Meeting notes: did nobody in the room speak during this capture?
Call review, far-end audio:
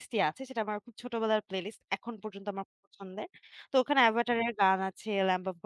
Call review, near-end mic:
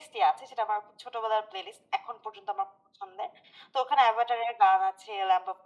Yes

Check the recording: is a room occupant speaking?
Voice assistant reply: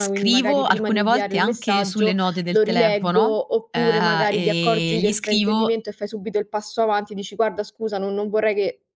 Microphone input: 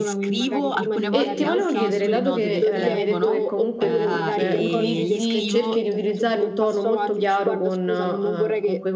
Yes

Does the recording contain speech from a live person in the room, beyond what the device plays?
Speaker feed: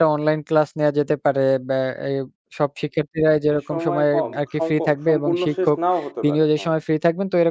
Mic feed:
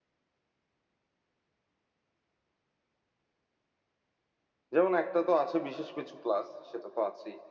Yes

